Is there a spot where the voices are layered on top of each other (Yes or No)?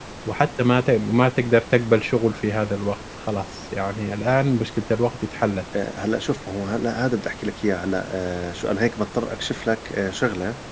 No